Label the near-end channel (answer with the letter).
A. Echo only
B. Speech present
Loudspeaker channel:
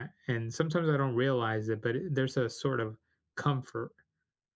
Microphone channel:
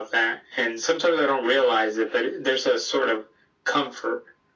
A